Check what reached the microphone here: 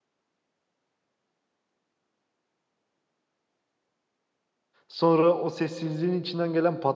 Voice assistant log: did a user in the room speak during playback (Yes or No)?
Yes